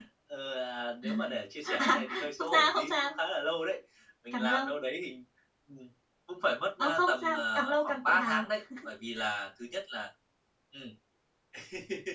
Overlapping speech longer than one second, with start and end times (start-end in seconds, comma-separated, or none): 1.8-3.1, 6.8-8.5